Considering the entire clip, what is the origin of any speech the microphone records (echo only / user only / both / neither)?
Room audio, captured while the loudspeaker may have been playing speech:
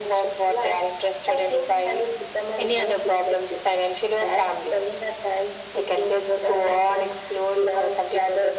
echo only